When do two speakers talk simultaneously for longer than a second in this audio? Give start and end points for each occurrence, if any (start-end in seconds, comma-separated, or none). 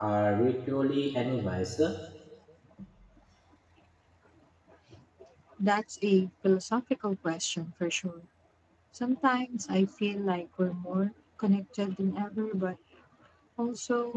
none